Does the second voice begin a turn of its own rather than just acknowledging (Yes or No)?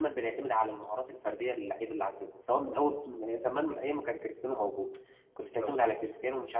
No